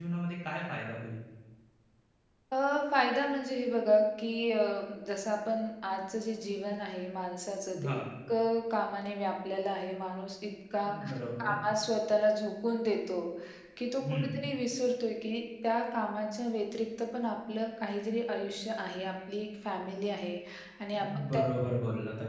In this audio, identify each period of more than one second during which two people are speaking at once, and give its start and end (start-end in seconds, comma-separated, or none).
none